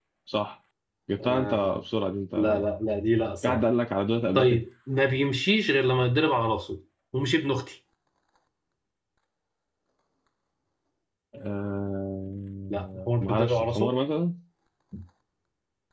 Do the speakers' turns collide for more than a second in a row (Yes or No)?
Yes